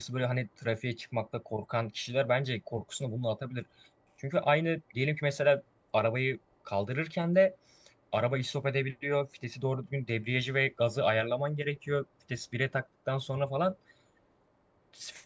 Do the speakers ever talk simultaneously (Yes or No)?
No